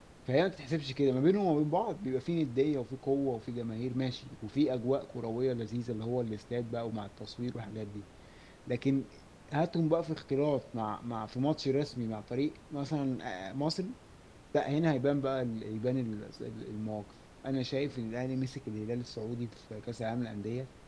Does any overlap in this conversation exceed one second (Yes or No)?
No